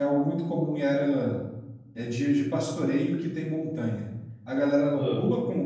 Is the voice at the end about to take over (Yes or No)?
No